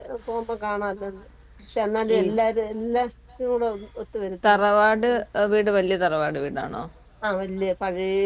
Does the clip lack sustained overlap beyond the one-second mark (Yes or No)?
Yes